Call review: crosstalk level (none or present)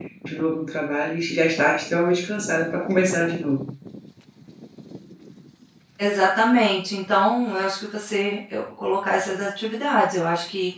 none